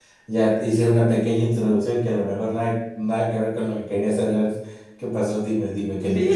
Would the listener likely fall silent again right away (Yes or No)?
No